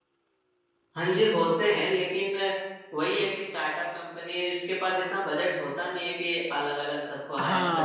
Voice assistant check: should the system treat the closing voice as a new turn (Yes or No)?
Yes